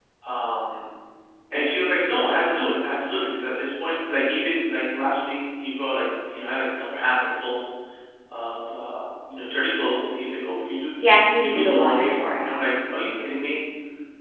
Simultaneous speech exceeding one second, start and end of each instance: 11.3-12.6

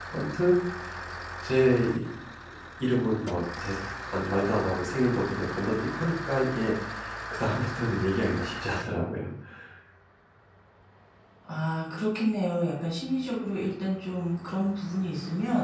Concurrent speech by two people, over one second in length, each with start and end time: none

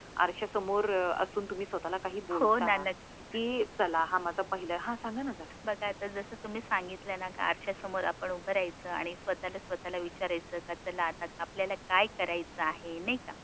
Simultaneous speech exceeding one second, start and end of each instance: none

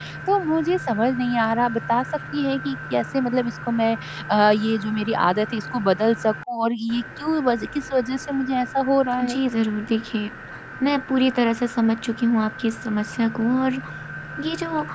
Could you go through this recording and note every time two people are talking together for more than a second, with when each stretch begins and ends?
none

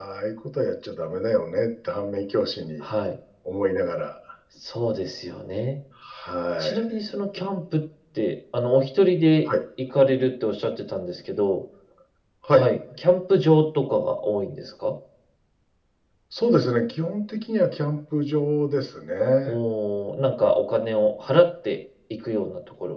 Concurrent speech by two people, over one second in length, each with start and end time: none

